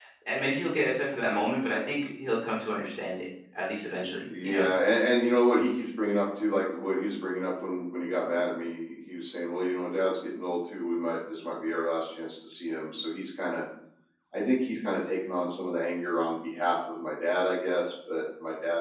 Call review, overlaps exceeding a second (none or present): none